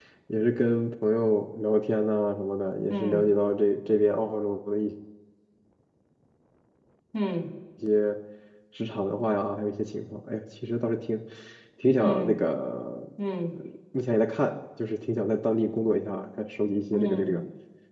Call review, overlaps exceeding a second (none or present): none